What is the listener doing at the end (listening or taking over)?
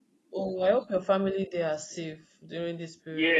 taking over